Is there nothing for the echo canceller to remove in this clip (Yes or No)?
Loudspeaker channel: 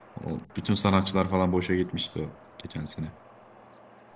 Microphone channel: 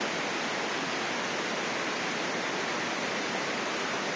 Yes